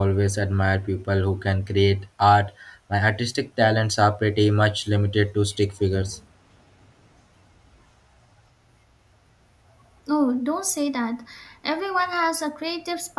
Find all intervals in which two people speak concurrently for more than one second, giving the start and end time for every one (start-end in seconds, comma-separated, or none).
none